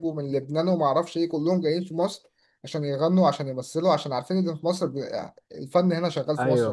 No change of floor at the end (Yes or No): No